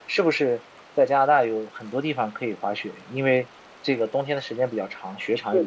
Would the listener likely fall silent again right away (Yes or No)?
No